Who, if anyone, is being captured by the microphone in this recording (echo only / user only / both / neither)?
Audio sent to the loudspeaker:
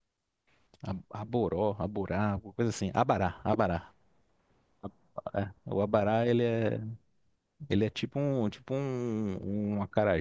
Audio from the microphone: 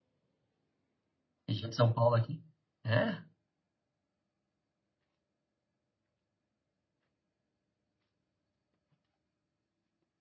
user only